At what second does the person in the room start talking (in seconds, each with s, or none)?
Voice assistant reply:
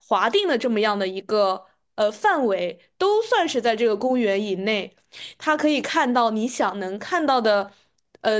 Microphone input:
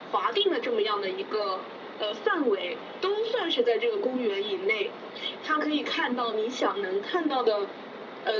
none